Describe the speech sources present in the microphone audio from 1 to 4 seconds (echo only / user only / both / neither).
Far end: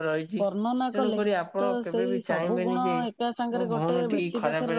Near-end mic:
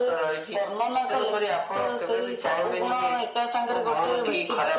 echo only